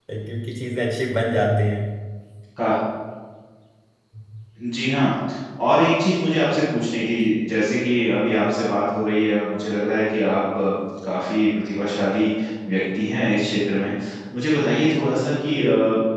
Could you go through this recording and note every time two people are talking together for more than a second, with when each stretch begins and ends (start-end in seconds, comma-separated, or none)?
none